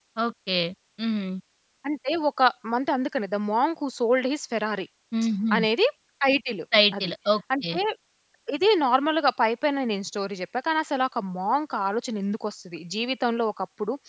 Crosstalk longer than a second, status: none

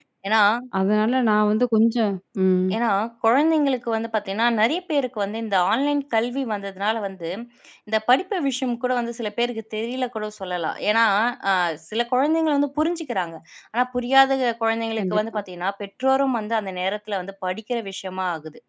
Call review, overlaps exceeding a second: none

